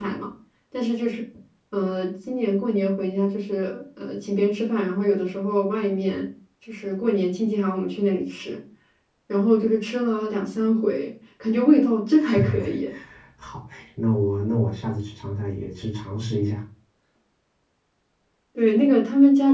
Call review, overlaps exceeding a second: none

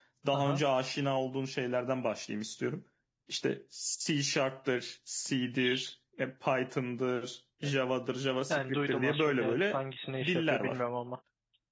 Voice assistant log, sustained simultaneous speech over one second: present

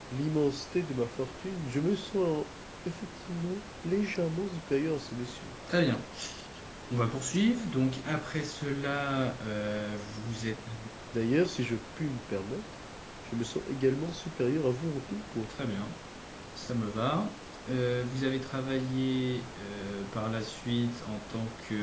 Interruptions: none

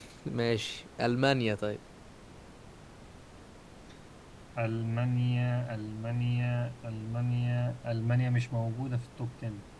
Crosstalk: none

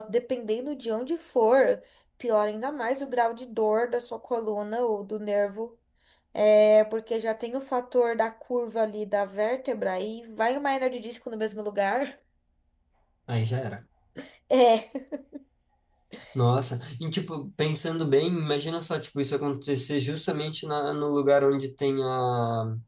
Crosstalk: none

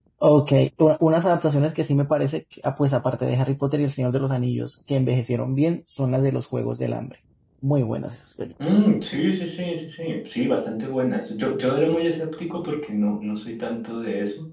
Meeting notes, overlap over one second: none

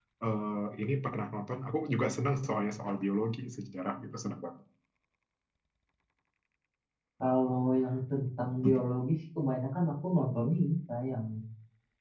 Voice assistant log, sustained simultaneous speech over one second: none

